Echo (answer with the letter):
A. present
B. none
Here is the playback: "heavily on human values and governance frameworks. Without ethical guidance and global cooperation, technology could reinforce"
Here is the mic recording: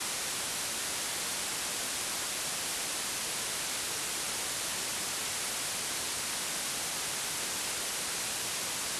B